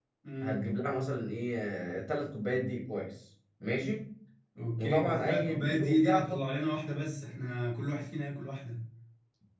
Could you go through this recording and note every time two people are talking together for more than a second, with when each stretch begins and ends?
4.8-6.4

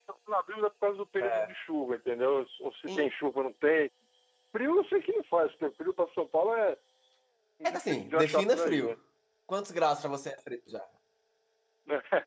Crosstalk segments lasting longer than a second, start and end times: 7.6-9.0

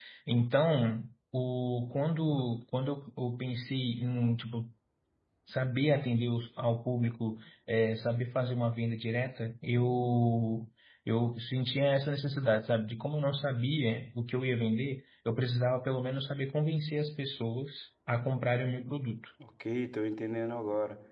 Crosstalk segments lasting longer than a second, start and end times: none

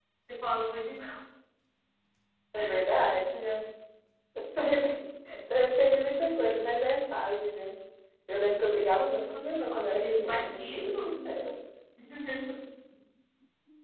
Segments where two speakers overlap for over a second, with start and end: 9.7-11.1

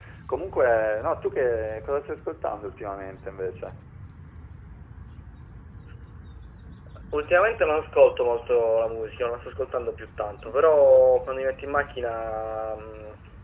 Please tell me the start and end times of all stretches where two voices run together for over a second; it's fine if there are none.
none

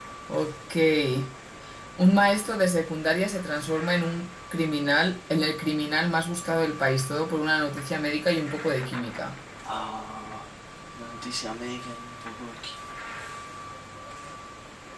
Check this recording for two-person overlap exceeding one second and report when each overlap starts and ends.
none

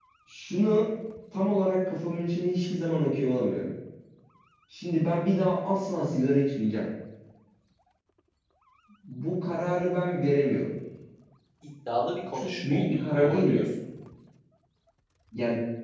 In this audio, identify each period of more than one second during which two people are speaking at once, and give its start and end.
12.3-13.7

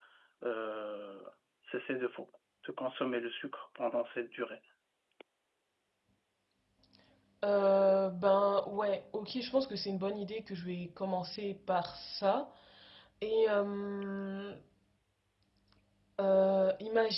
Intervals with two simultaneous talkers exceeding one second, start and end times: none

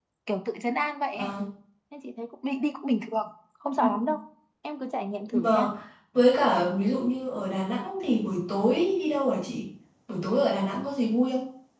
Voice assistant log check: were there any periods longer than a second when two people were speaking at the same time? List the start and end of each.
none

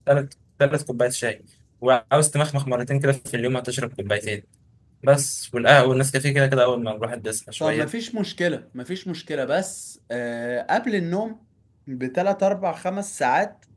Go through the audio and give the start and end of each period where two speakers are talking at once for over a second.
none

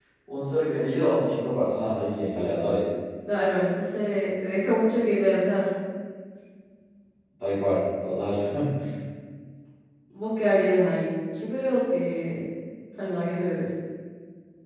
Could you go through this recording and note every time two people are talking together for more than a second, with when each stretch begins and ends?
none

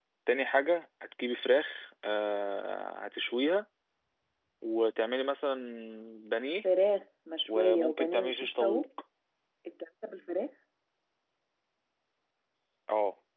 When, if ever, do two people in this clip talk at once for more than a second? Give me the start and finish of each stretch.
7.5-8.8

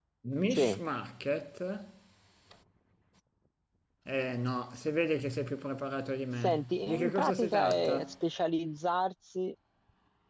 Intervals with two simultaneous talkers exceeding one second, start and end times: 6.4-8.1

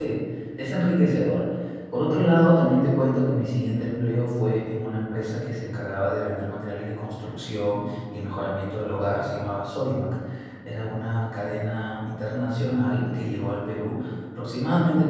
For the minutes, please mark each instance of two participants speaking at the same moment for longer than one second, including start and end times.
none

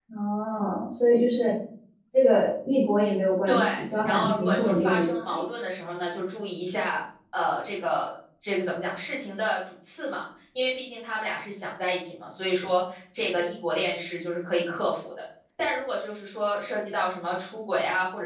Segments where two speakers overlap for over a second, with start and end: 4.0-5.4

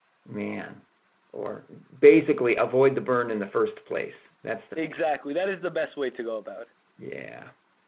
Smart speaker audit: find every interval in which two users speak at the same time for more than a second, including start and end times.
none

